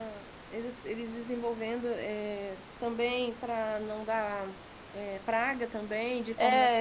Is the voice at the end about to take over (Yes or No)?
Yes